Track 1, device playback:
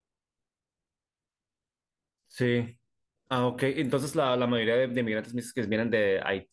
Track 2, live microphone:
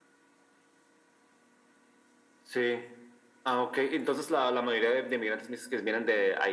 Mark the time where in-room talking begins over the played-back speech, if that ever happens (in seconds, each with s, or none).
none